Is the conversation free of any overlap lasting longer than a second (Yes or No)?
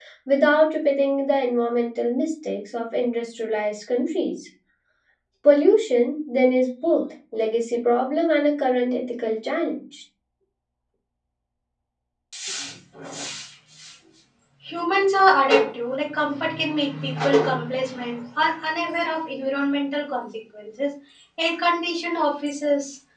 Yes